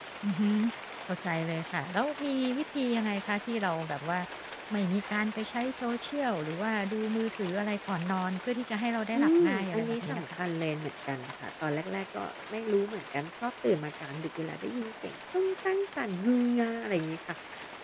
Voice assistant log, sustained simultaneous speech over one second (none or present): present